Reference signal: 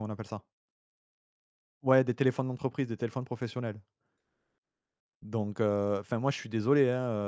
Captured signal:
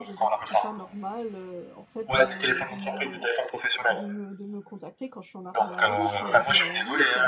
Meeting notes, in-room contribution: present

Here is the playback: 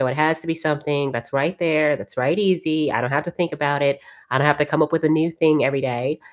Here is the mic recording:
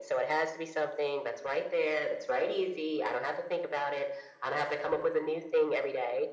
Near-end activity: none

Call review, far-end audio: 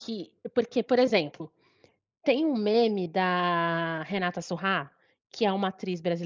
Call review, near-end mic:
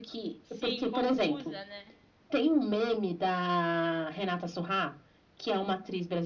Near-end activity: present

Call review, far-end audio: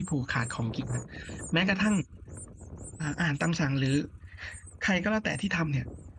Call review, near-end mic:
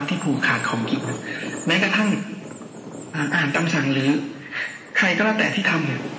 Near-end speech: none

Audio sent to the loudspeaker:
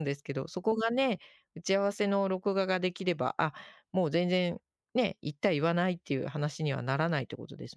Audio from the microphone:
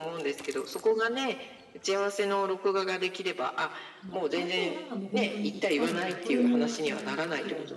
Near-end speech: present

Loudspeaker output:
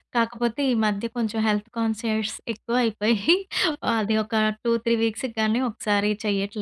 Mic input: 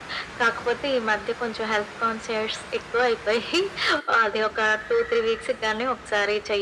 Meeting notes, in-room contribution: none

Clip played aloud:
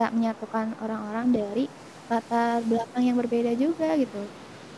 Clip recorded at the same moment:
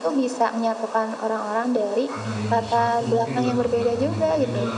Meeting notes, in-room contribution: present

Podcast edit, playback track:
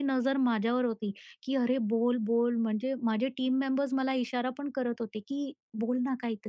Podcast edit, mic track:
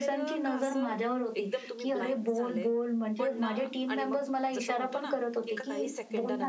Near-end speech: present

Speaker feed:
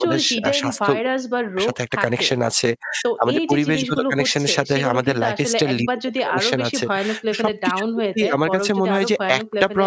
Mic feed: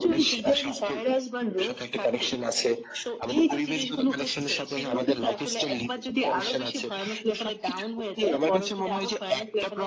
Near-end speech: none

